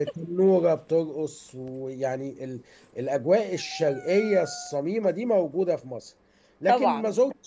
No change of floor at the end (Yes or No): Yes